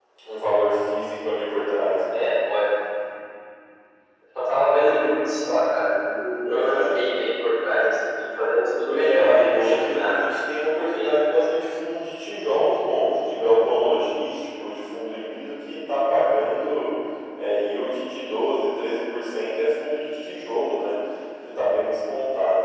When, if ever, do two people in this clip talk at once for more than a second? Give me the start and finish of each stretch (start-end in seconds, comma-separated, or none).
8.9-10.2